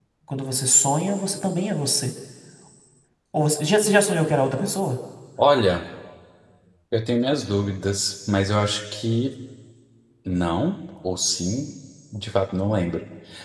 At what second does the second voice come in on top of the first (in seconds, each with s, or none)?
none